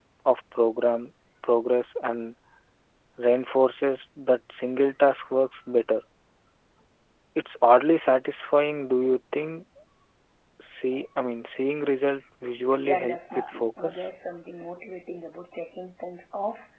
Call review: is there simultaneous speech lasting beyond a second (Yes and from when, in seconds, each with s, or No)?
Yes, from 12.8 s